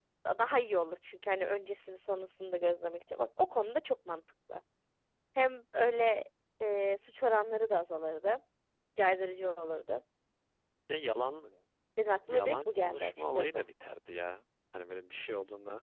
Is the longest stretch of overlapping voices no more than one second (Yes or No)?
No